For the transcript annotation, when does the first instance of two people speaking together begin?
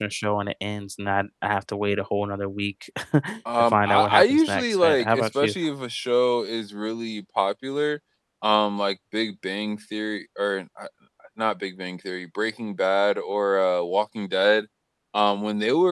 3.6 s

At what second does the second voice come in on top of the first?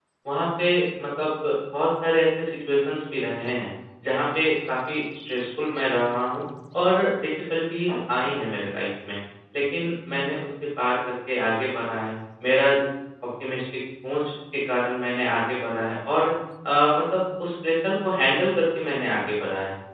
none

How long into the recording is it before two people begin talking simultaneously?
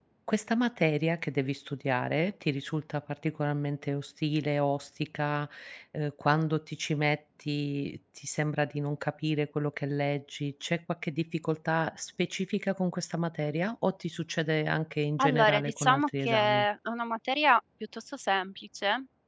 15.2 s

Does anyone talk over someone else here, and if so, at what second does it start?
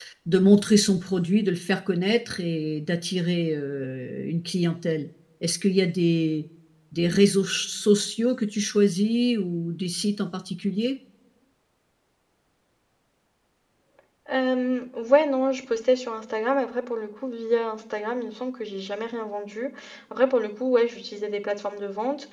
none

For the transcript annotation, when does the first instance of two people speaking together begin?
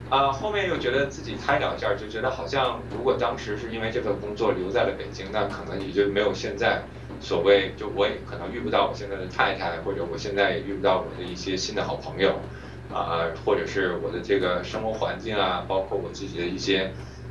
none

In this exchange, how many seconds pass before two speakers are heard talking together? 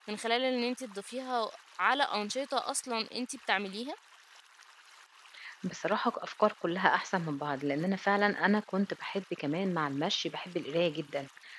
none

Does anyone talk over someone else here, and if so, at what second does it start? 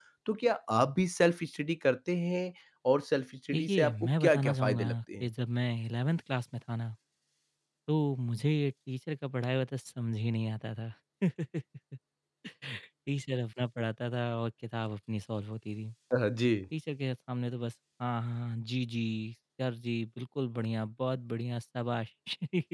3.5 s

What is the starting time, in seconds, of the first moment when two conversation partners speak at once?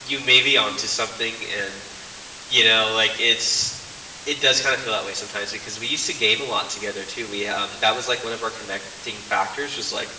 none

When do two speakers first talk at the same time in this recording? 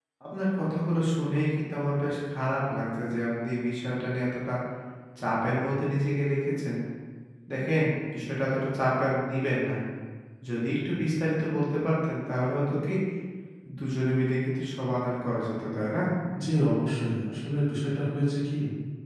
none

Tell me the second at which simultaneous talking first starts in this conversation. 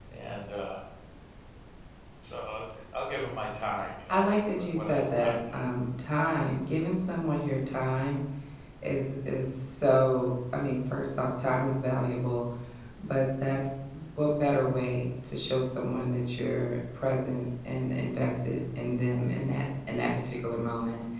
4.1 s

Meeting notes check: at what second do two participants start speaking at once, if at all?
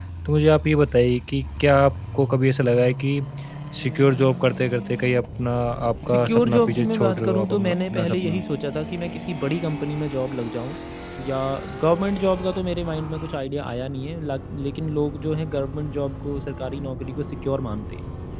6.1 s

